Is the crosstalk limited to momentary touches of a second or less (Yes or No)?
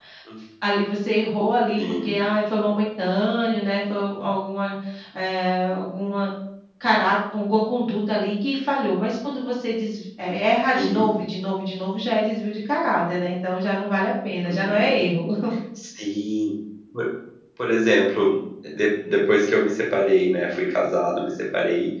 Yes